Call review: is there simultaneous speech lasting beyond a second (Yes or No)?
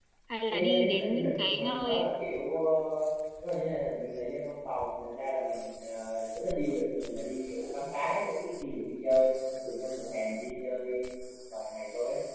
Yes